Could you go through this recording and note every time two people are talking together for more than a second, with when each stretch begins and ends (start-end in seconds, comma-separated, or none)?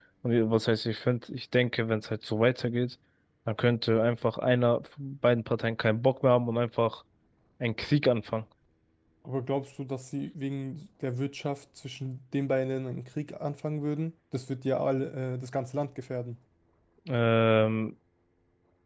none